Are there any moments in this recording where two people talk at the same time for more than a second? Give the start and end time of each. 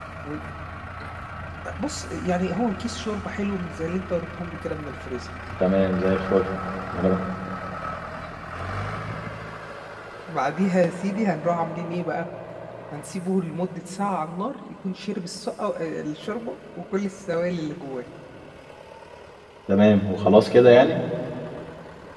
none

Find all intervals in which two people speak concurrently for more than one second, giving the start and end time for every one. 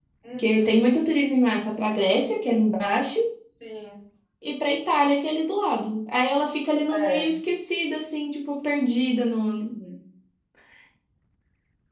none

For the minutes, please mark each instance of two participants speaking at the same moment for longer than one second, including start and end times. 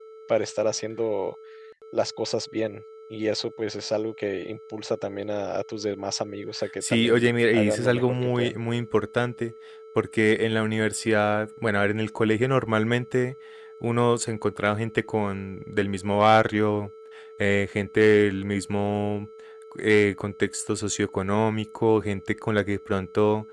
6.9-8.6

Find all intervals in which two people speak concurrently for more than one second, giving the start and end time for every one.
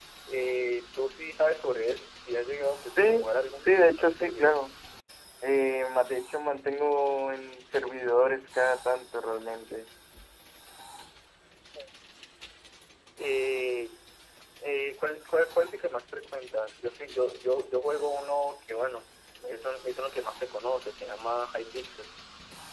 2.9-4.6

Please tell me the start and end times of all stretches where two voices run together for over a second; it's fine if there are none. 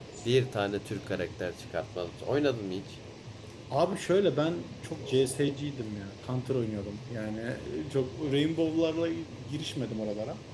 none

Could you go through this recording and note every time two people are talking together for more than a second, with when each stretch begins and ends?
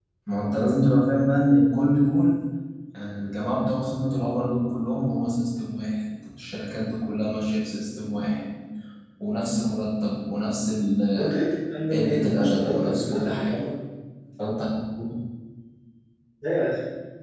11.9-13.6

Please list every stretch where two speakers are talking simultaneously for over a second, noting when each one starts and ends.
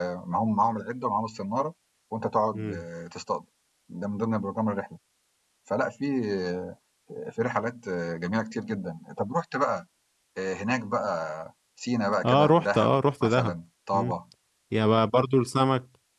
12.2-13.5

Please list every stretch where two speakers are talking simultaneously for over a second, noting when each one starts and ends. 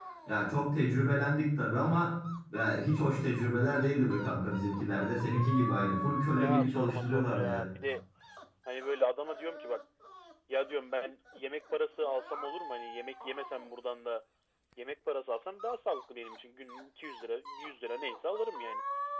6.4-7.6

